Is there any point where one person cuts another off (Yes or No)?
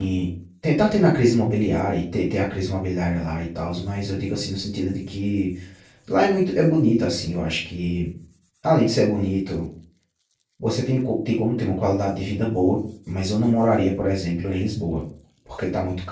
No